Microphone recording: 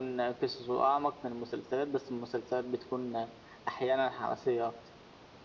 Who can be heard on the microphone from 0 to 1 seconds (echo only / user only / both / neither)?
echo only